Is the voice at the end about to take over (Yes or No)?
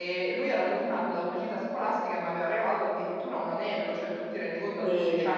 No